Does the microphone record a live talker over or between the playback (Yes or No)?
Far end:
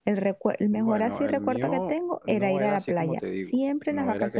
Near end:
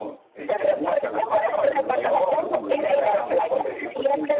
Yes